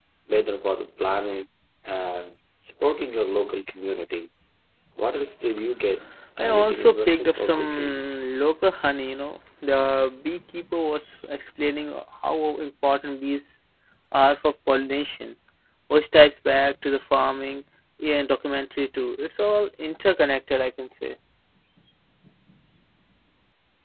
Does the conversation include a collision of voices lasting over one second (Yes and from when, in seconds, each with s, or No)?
Yes, from 6.4 s